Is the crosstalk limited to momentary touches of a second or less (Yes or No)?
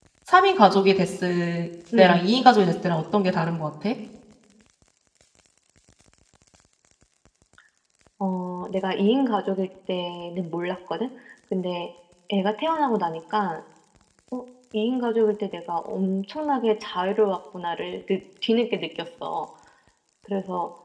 Yes